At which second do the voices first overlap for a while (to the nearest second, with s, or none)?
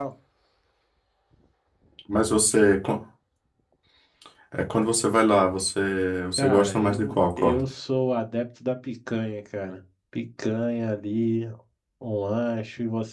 6 s